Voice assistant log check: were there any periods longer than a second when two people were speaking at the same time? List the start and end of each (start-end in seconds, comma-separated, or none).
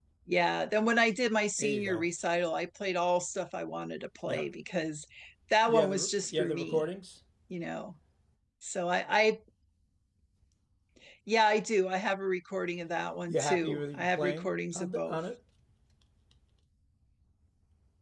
5.6-6.9, 13.3-15.2